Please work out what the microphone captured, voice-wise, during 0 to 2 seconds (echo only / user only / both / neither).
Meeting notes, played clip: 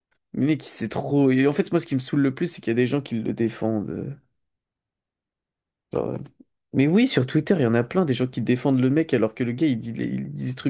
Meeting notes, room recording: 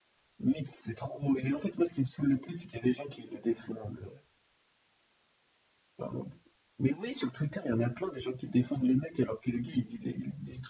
echo only